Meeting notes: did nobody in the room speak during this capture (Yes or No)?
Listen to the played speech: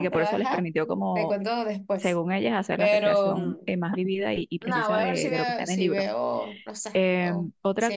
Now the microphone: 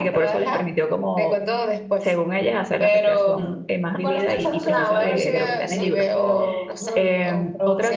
No